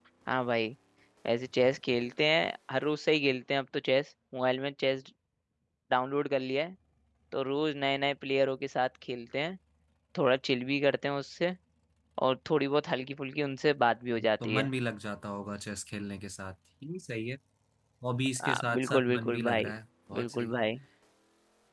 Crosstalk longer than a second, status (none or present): present